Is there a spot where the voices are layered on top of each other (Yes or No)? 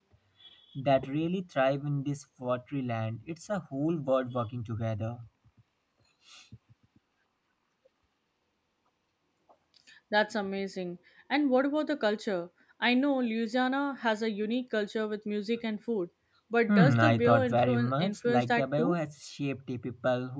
Yes